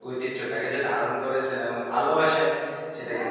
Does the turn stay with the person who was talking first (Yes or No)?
Yes